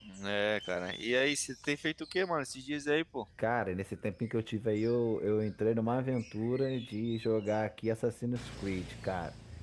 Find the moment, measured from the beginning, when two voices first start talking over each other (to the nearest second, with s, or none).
none